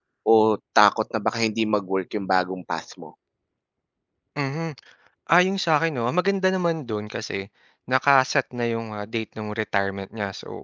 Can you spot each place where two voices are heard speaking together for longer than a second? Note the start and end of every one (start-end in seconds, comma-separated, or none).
none